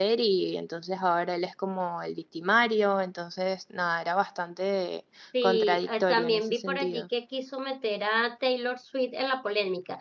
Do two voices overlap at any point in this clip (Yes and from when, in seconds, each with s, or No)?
Yes, from 5.3 s